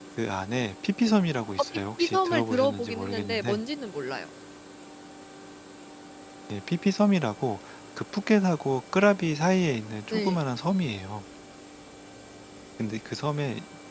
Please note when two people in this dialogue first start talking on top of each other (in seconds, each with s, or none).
1.7 s